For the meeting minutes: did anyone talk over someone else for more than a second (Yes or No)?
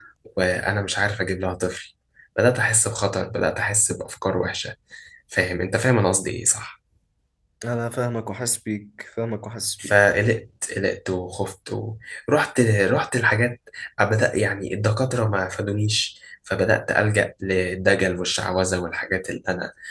No